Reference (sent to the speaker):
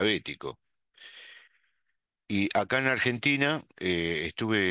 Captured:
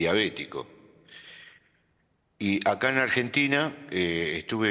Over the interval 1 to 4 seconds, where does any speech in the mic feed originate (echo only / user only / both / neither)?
echo only